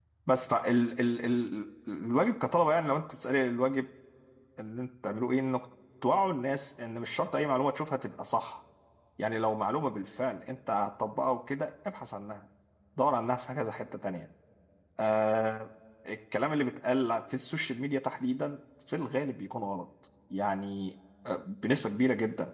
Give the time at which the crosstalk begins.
none

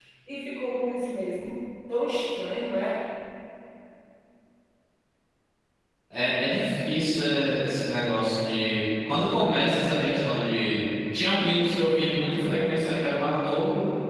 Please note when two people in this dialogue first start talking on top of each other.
none

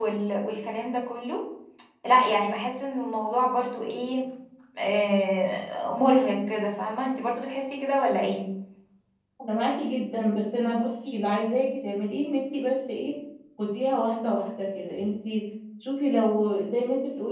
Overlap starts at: none

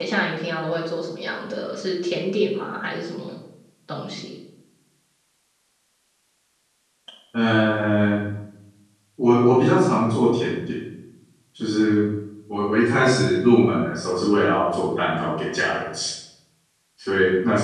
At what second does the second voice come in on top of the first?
none

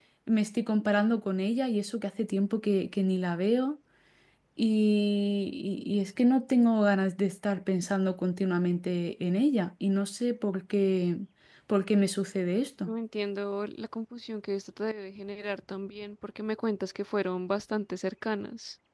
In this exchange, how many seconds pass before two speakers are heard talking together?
none

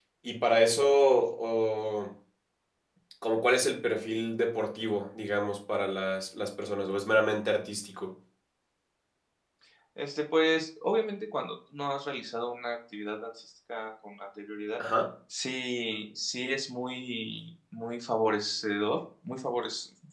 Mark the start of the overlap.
none

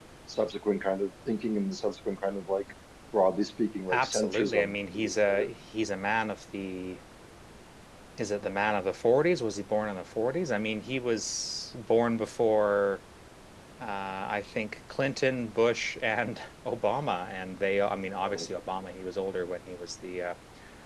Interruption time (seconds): 3.9 s

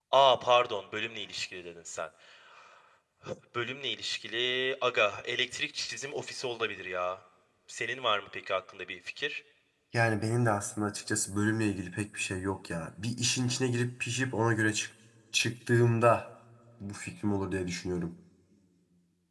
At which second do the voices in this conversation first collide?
none

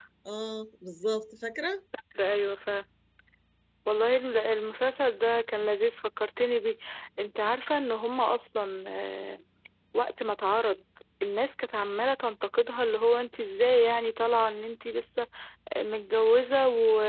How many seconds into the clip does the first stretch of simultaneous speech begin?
none

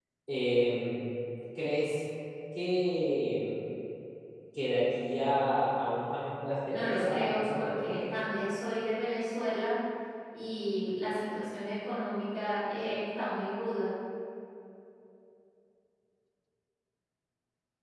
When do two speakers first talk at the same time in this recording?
6.7 s

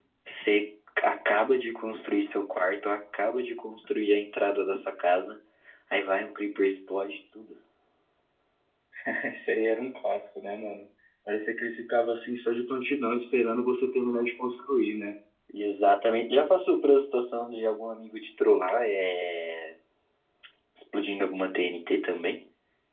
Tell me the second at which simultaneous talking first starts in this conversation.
none

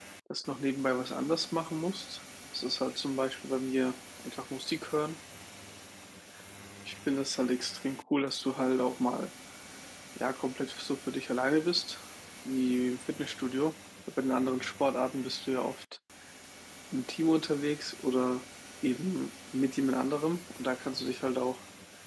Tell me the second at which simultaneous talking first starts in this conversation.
none

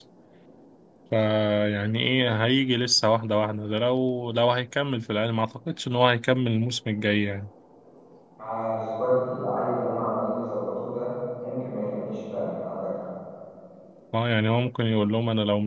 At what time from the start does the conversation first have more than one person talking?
none

